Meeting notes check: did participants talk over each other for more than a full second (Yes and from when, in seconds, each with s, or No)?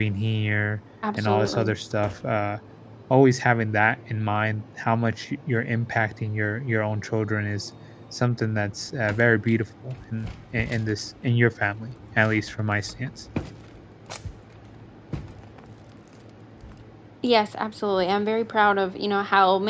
No